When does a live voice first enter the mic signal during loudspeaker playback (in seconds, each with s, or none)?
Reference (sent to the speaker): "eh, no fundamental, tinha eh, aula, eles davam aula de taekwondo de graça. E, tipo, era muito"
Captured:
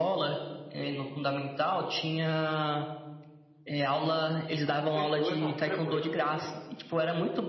4.6 s